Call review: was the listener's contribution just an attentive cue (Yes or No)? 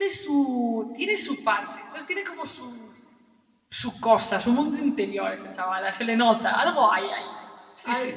No